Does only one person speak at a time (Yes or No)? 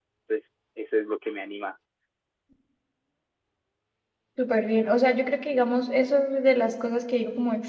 Yes